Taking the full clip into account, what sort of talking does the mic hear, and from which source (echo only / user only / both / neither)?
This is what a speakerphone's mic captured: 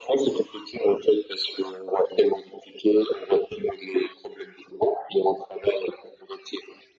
echo only